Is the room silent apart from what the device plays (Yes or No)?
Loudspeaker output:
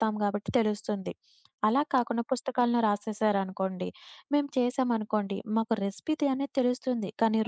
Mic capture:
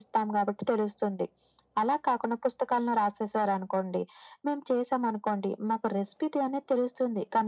Yes